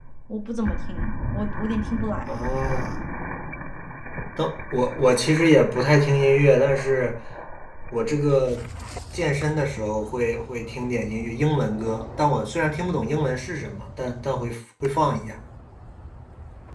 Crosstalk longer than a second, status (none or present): none